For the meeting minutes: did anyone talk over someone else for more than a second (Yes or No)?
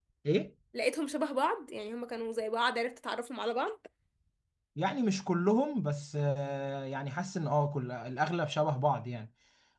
No